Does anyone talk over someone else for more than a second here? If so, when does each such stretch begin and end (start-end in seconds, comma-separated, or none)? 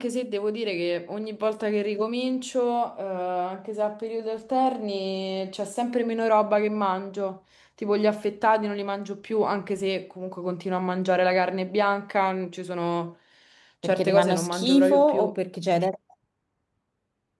13.8-15.3